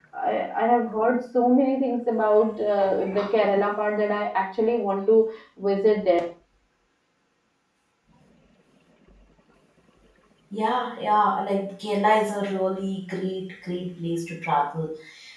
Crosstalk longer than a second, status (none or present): none